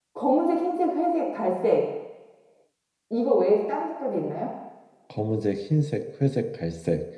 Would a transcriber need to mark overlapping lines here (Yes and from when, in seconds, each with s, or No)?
No